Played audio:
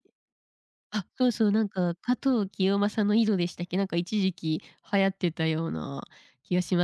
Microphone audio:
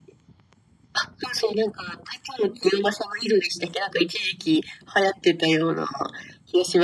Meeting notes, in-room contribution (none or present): none